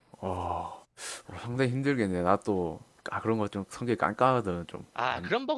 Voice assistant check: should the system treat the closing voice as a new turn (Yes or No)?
Yes